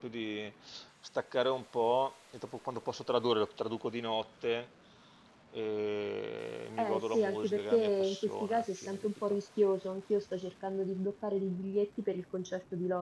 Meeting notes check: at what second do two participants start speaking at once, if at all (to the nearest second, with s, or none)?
7 s